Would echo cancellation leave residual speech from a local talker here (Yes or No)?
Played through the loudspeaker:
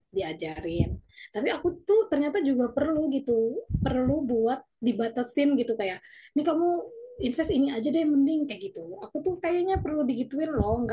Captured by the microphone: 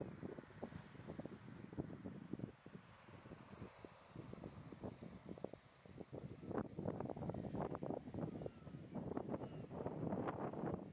No